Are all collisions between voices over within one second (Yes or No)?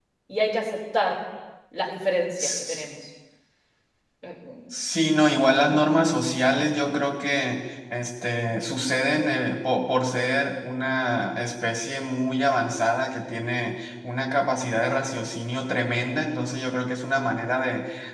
Yes